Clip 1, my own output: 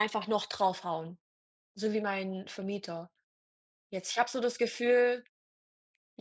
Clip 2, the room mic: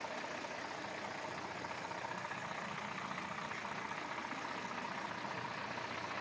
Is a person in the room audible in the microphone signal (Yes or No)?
No